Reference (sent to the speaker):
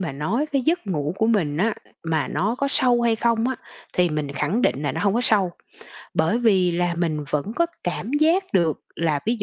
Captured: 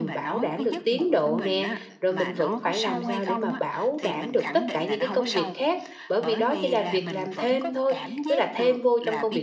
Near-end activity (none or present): present